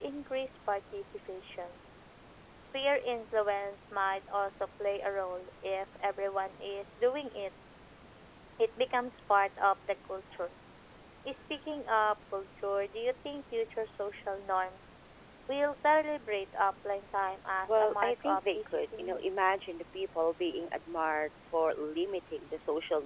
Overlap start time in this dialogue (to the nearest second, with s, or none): 18 s